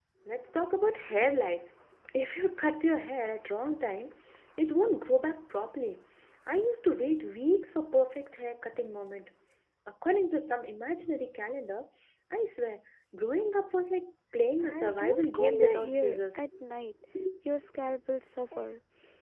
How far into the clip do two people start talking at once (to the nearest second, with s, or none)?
15 s